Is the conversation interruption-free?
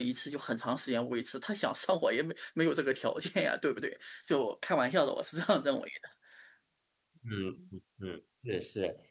Yes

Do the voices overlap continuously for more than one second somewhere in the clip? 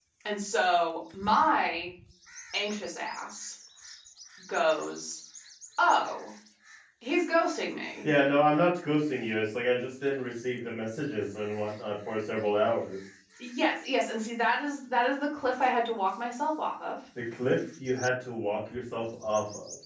No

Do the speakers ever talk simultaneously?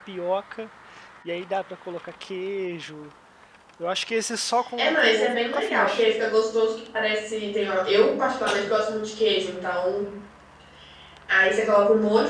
Yes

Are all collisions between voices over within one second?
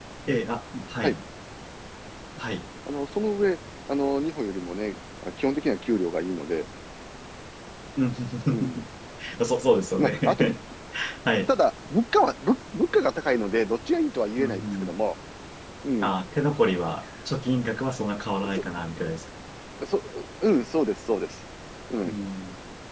Yes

